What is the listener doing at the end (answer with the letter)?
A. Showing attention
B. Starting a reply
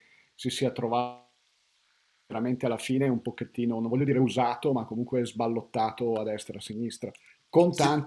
A